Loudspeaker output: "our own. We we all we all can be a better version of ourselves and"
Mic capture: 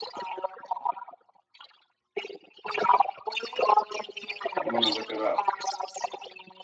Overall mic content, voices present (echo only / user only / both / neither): both